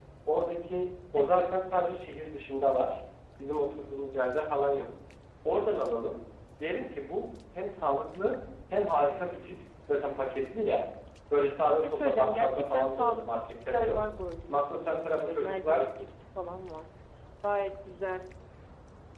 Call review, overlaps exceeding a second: present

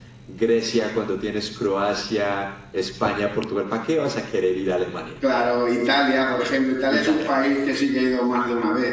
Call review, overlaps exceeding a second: none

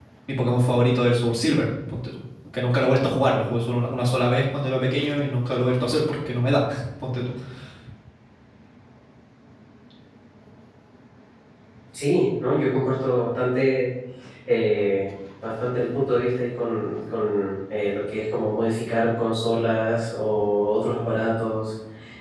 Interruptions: none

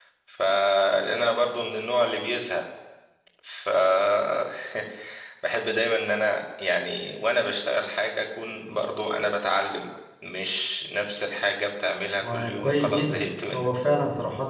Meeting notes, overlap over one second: present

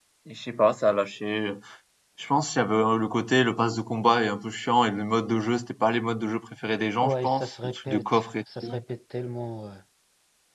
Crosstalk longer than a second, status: present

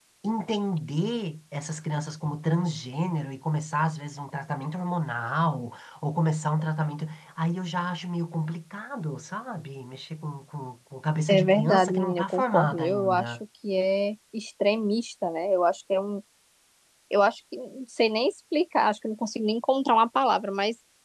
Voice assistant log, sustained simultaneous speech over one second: present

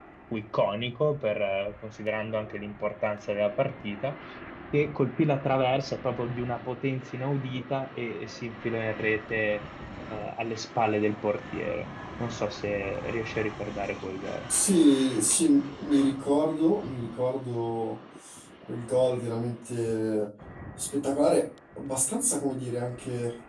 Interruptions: none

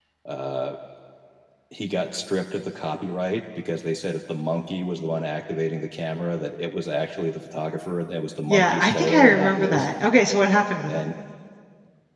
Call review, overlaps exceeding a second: present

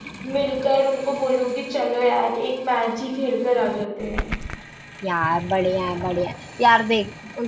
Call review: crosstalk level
none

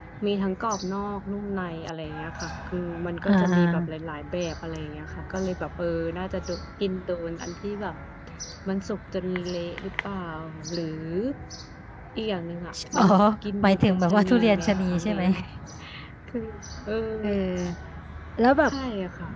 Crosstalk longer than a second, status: present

